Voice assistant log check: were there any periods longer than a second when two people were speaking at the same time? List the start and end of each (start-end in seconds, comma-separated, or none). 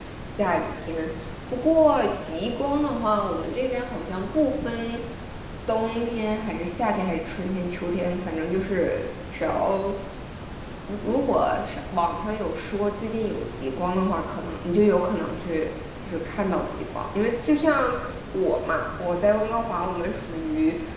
none